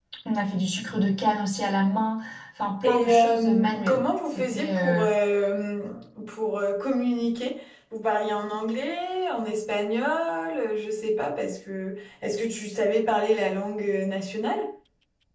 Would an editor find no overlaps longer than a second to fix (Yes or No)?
No